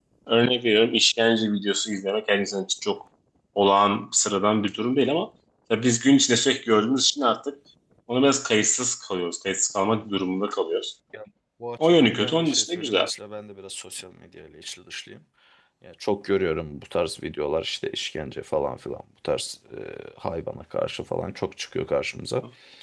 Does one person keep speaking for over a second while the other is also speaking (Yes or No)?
Yes